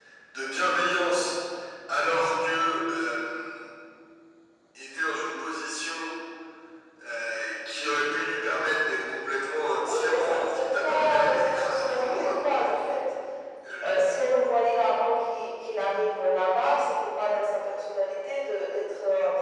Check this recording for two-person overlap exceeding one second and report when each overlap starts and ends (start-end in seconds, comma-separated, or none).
9.9-12.4